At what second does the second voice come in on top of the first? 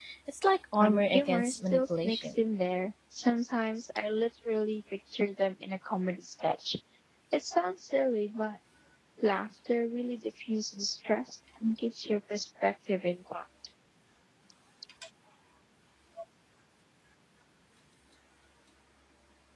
0.8 s

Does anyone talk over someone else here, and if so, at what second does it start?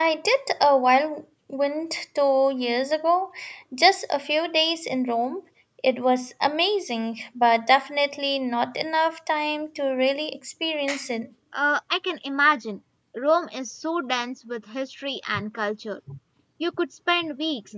none

